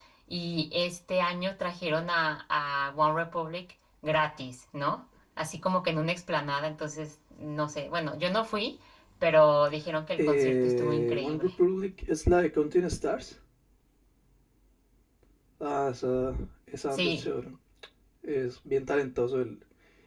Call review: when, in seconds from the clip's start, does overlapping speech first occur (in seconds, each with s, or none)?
10.2 s